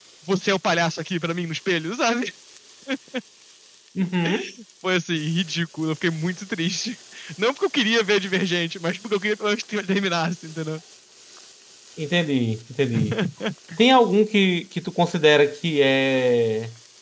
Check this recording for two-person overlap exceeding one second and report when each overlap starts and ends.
none

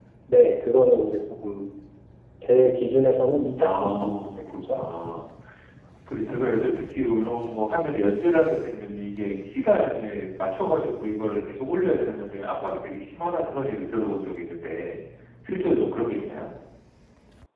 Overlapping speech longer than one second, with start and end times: 3.6-4.8

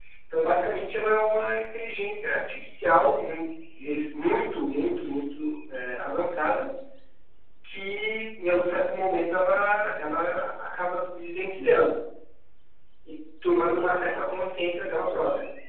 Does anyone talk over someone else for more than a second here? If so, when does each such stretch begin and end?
none

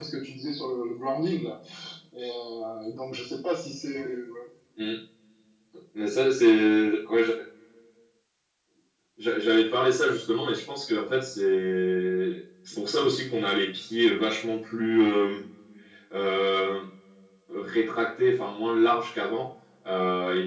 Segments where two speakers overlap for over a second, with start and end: none

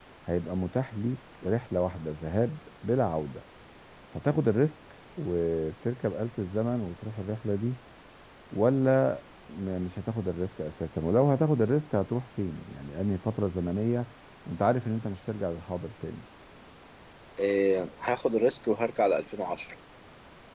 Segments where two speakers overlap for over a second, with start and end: none

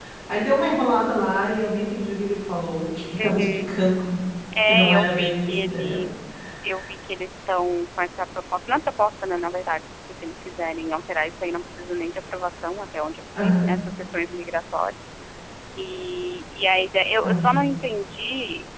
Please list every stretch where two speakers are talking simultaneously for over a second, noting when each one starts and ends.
4.7-6.0

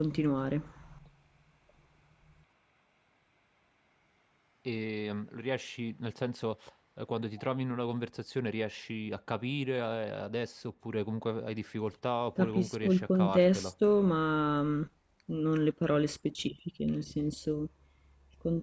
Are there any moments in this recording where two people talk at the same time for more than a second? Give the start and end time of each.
12.4-13.7

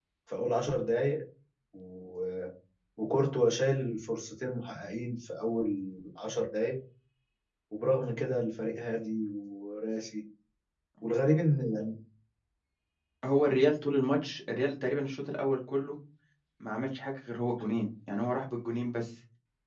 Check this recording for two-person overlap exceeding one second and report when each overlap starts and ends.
none

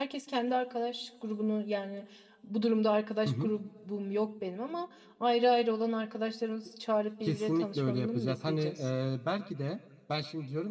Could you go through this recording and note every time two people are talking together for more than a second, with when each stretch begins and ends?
7.2-8.9

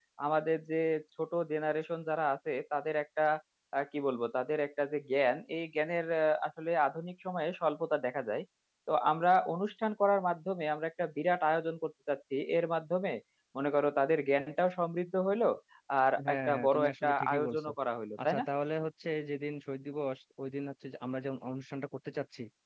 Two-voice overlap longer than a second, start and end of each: 16.3-17.7

